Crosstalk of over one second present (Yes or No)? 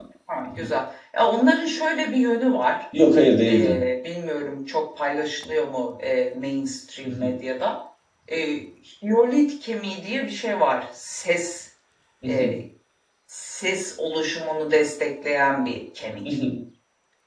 No